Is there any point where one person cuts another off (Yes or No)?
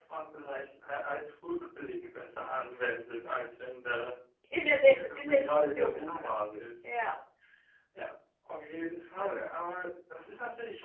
Yes